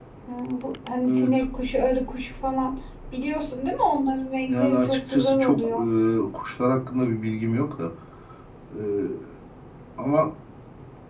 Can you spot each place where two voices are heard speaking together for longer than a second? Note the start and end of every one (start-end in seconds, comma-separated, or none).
4.5-5.7